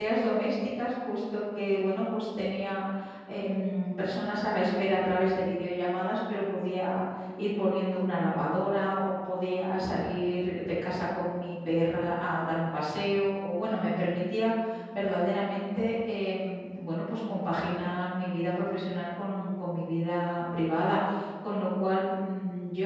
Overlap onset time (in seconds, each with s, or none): none